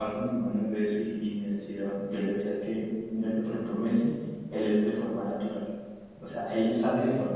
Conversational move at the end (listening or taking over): listening